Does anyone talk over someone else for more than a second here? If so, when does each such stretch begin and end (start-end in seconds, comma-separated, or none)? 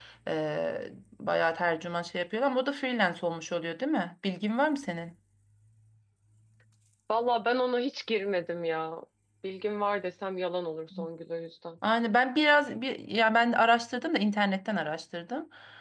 none